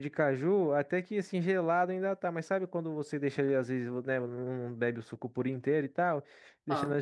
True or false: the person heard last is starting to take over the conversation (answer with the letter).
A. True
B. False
B